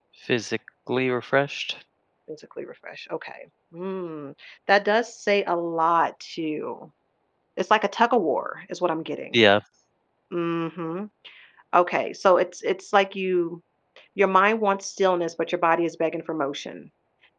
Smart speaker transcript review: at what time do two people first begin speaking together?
none

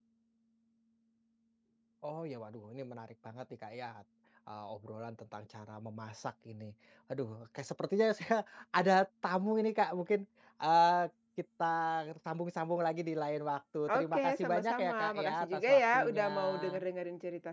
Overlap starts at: 13.9 s

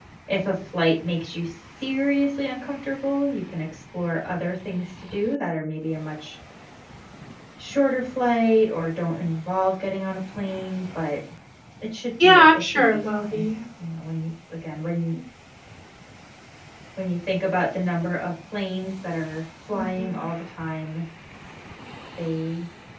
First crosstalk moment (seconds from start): 12.2 s

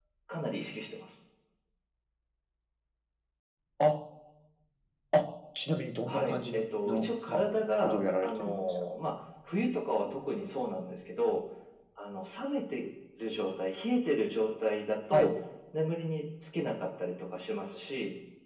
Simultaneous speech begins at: 6.0 s

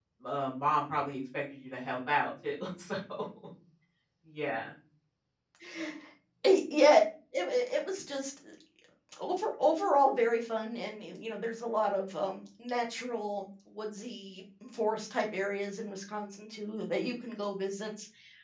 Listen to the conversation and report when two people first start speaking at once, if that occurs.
none

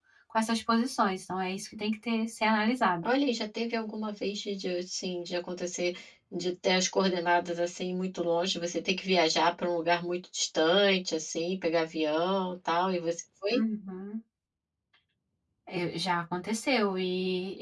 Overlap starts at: none

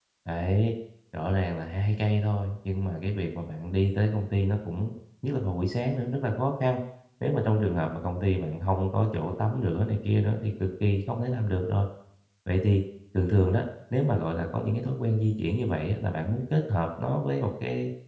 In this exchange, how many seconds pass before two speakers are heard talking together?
none

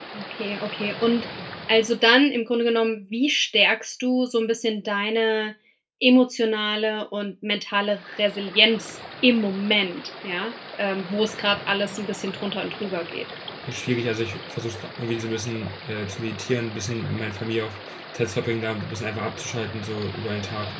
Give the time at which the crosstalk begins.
none

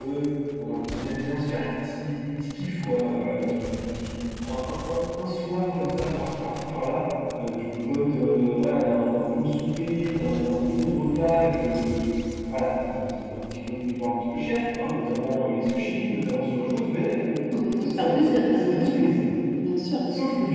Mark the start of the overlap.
17.8 s

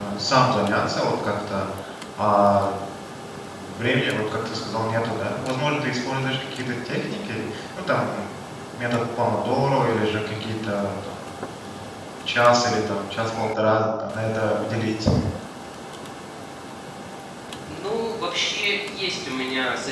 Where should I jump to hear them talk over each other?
none

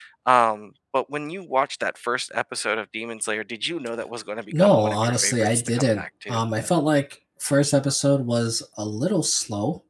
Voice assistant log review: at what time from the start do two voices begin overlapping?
4.5 s

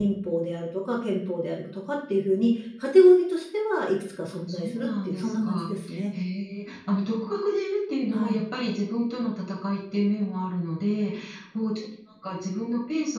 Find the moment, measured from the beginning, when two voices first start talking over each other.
4.3 s

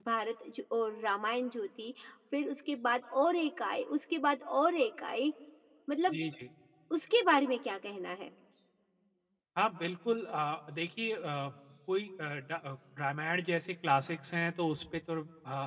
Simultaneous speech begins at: none

